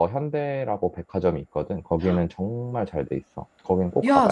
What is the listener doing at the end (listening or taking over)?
taking over